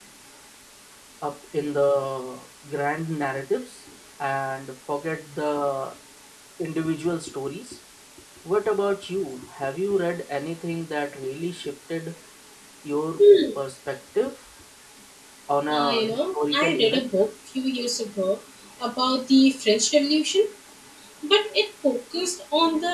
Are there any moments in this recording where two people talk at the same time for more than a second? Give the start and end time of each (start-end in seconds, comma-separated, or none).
15.7-17.1